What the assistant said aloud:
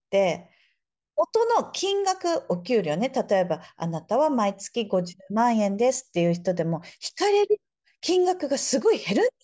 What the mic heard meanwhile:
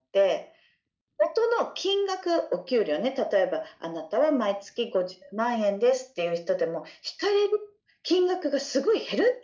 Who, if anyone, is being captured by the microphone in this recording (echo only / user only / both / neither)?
echo only